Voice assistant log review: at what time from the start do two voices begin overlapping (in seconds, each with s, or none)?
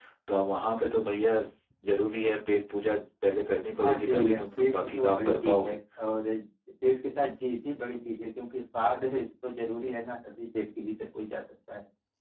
3.8 s